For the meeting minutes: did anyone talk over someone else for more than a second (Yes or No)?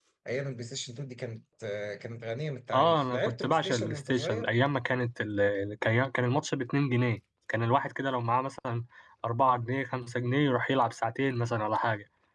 Yes